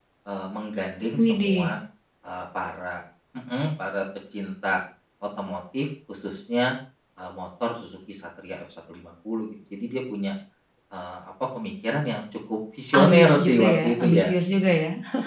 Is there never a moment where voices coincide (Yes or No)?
No